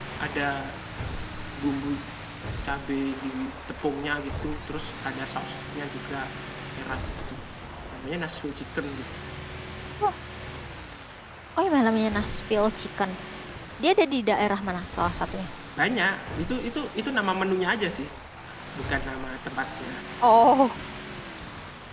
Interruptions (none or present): none